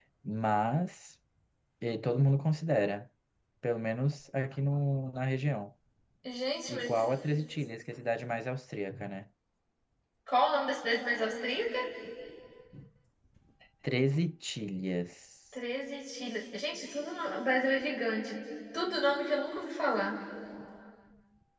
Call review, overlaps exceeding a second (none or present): none